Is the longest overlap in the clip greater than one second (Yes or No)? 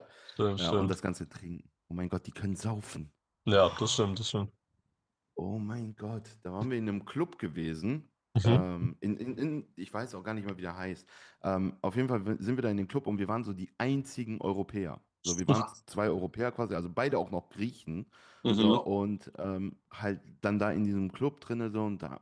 No